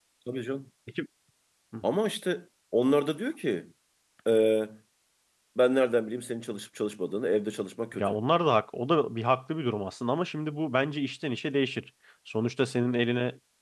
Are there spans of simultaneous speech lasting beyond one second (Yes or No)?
No